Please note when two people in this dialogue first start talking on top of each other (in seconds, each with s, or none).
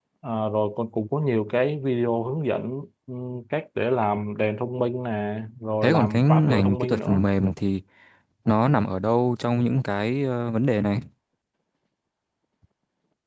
5.8 s